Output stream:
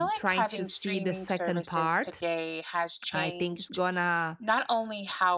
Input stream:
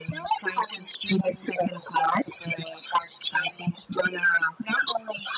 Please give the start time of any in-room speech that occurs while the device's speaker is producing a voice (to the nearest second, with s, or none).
none